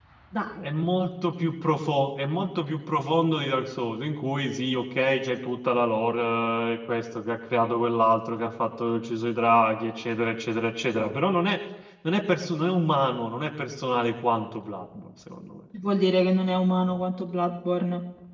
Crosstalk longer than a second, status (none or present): none